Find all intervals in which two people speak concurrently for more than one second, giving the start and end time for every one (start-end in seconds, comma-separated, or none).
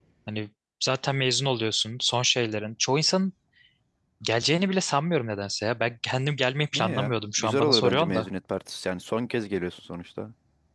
6.7-8.3